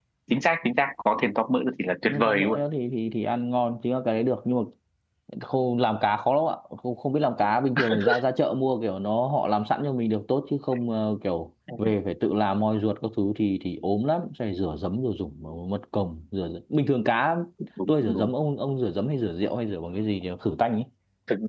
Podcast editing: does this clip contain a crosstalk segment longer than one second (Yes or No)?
No